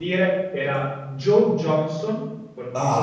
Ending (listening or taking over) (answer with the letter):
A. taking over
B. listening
A